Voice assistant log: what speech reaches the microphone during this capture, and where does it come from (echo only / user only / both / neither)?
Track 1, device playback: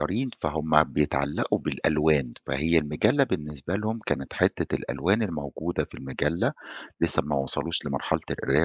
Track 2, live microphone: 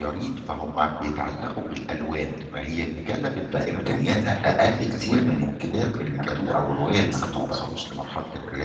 both